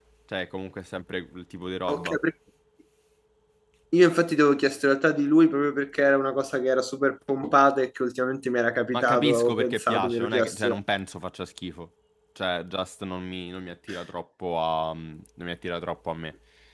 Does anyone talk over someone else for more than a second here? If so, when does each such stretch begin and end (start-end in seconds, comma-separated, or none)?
8.9-10.8